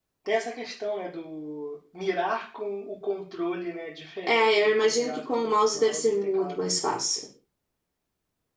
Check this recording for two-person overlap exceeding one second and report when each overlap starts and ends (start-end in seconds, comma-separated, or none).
4.2-6.8